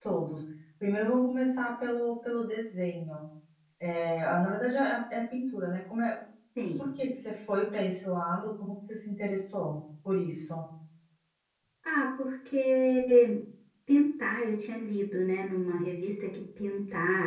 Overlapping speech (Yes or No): No